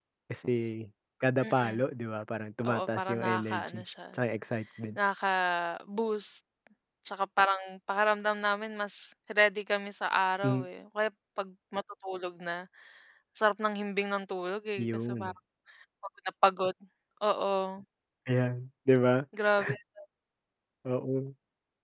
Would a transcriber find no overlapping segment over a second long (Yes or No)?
No